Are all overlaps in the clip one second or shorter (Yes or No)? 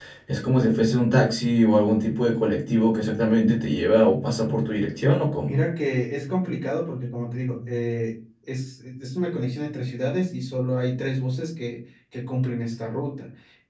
Yes